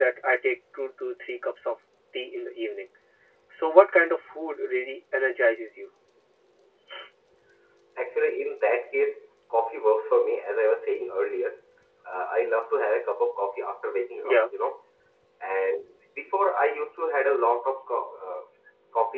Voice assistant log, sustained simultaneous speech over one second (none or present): none